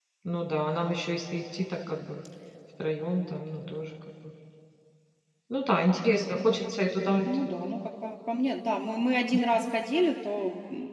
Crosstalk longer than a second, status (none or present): none